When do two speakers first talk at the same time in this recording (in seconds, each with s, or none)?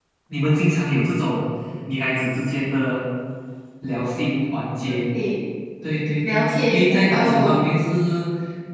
6.3 s